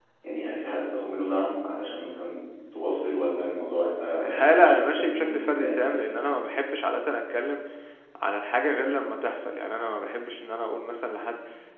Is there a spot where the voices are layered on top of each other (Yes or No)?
Yes